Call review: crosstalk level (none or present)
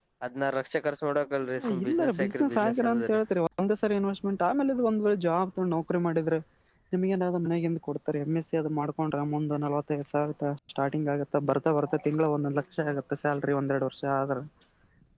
present